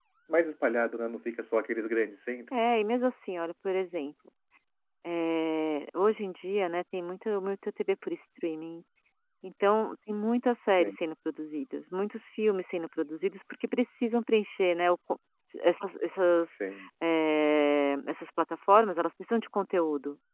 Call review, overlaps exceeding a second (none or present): none